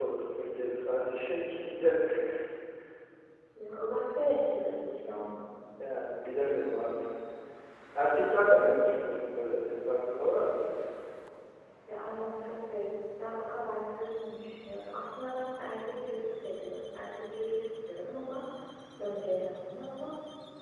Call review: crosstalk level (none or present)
none